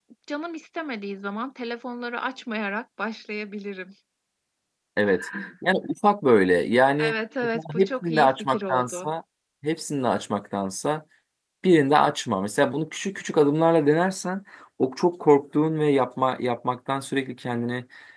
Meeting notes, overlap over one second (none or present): present